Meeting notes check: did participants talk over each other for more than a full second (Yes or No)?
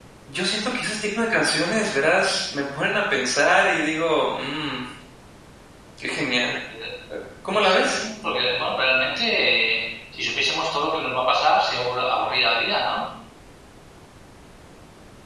No